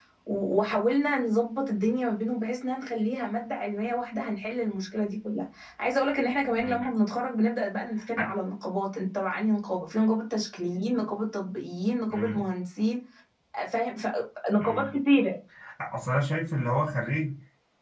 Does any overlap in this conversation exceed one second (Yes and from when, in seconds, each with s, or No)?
No